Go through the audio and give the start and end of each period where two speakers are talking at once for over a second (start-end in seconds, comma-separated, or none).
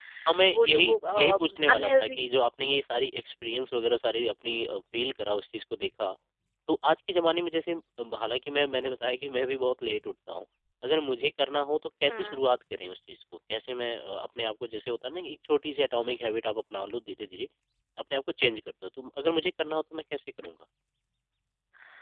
0.5-2.2